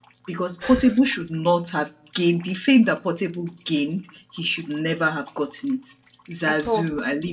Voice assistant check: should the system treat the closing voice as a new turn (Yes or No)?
No